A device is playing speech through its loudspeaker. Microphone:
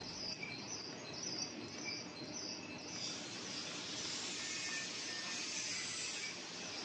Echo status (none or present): none